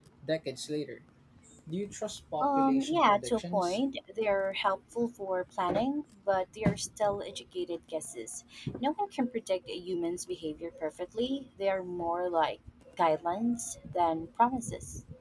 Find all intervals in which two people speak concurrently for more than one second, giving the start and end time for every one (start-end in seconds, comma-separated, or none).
2.4-3.8